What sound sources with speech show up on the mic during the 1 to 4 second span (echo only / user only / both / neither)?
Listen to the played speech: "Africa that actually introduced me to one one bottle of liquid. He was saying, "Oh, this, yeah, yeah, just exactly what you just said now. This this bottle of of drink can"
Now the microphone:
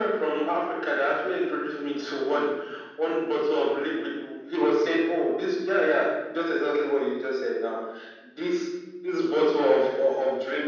echo only